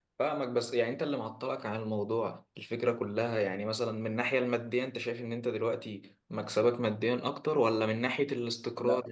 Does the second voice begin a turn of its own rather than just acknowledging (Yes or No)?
No